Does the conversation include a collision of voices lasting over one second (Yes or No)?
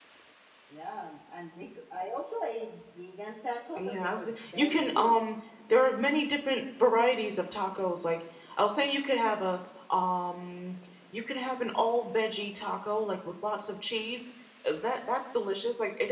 Yes